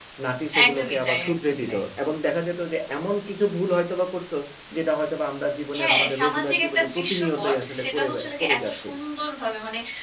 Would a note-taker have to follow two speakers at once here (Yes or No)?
Yes